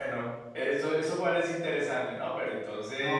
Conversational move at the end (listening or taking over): taking over